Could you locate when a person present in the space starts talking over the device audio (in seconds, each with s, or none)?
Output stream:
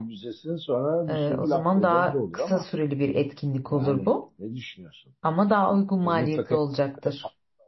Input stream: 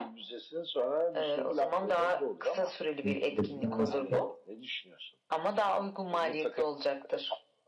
3.0 s